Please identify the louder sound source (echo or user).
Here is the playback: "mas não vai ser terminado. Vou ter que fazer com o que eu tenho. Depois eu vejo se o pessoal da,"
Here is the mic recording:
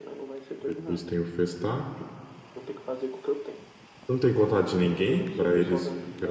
user